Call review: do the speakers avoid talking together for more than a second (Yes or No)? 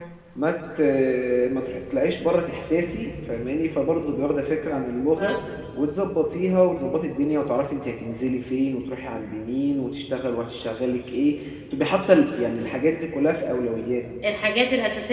Yes